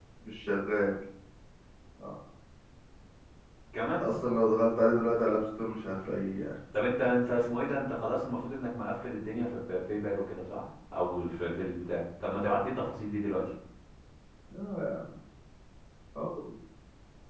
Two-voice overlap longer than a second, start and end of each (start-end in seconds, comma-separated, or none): none